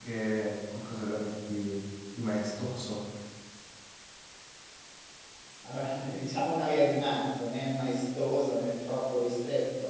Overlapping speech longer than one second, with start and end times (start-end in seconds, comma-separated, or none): none